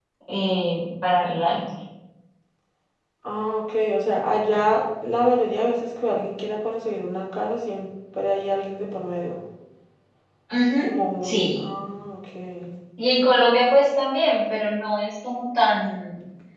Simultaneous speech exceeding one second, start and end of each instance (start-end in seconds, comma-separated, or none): none